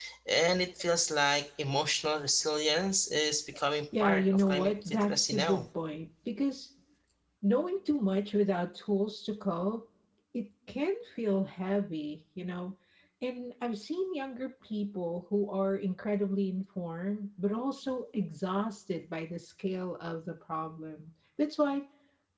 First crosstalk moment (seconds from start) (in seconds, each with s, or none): 3.9 s